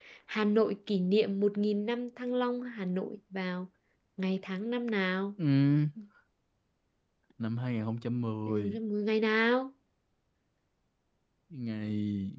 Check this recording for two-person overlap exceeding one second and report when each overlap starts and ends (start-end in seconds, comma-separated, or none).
none